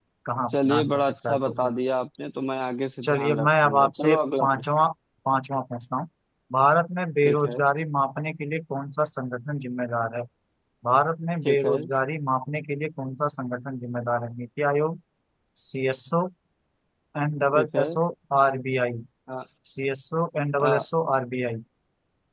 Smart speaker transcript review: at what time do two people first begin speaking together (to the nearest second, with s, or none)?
1 s